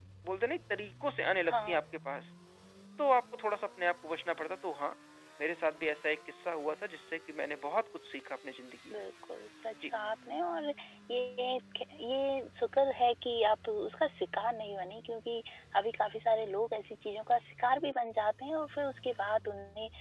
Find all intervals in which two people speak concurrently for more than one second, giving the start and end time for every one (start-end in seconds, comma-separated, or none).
none